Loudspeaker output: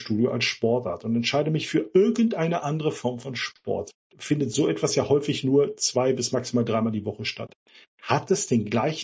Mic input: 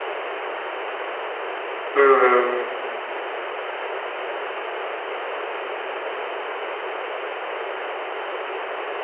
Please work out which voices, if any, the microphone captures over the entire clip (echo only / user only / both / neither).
user only